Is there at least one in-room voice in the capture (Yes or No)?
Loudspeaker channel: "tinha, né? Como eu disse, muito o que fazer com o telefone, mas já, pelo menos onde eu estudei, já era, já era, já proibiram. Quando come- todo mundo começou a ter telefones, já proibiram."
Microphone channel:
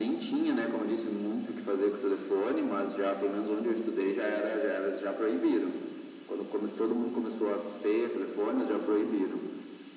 No